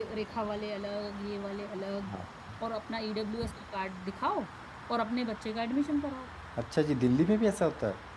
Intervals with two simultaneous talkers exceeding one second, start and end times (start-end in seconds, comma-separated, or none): none